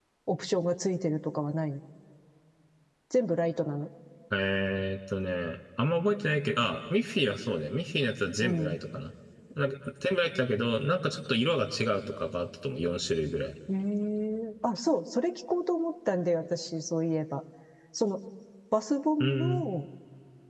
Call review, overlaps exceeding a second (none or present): none